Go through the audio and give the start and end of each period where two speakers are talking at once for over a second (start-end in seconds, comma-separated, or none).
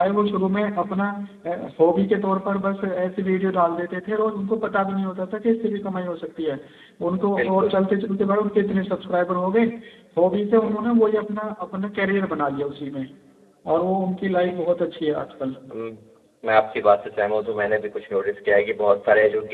none